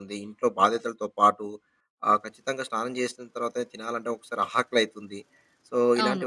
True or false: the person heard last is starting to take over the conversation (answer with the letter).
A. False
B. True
A